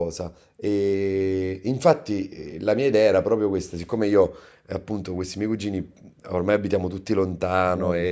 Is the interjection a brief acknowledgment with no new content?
Yes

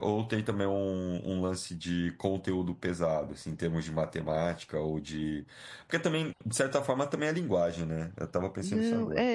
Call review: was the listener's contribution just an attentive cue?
No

